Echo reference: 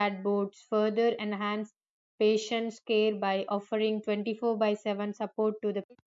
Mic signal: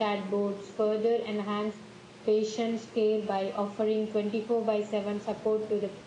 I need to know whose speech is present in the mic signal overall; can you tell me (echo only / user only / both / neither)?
echo only